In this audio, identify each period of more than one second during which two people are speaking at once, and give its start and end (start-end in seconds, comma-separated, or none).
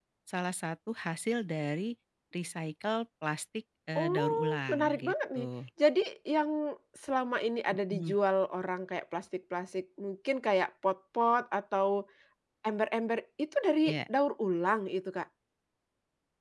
4.0-5.5